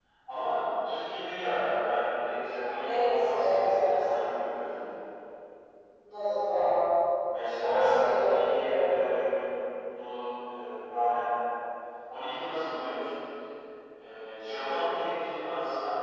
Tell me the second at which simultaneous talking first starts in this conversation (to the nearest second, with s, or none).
3 s